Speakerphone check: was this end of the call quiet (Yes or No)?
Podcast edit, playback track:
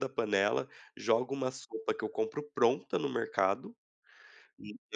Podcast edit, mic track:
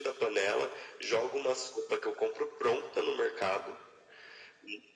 Yes